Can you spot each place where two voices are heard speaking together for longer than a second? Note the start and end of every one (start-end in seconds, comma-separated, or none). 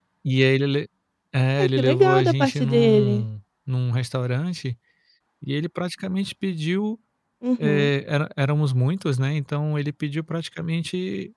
1.6-3.1